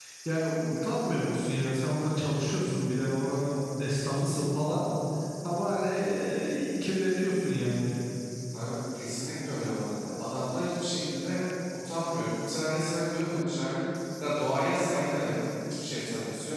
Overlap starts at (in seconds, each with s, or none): none